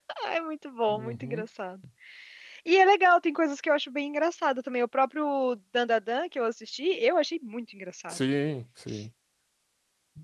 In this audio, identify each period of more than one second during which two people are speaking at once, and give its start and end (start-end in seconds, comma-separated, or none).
none